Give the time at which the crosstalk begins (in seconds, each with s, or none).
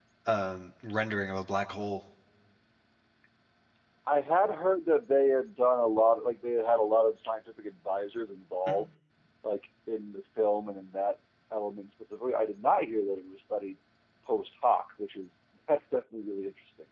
none